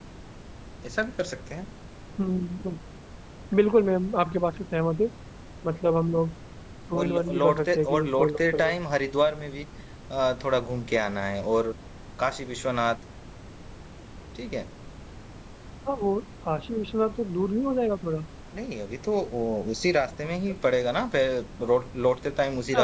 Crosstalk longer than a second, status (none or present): present